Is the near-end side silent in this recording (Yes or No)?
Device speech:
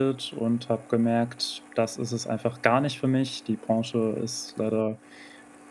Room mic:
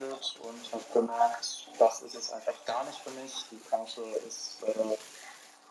Yes